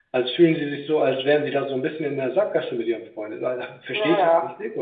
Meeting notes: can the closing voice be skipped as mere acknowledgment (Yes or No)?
No